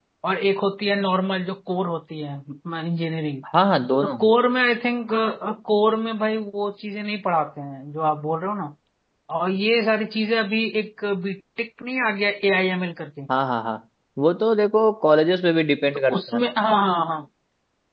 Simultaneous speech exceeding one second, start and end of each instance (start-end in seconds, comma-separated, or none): none